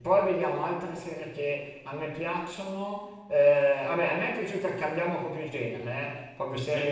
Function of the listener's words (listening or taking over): listening